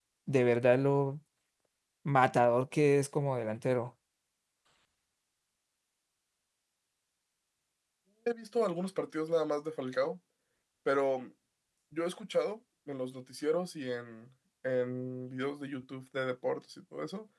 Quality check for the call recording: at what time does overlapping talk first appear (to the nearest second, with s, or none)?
none